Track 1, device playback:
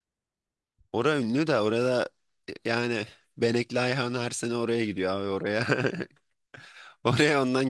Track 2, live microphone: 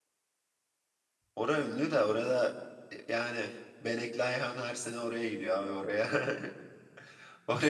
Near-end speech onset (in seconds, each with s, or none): none